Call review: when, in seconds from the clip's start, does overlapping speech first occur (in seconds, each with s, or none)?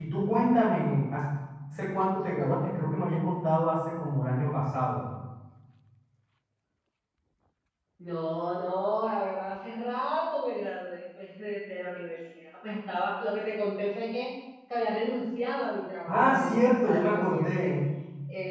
16.1 s